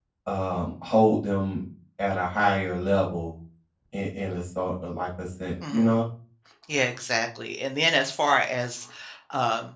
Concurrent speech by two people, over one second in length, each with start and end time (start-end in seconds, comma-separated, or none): none